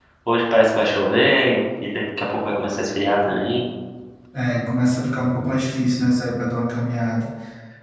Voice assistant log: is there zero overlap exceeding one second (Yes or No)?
Yes